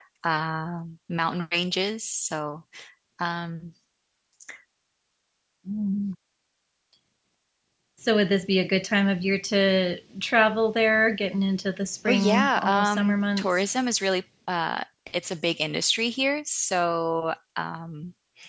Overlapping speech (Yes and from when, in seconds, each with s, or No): Yes, from 12.0 s